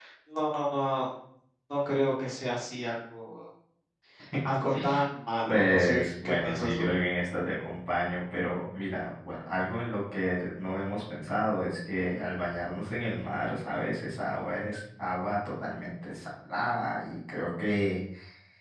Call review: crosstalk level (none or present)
present